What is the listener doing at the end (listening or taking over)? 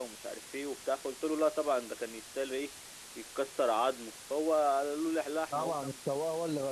taking over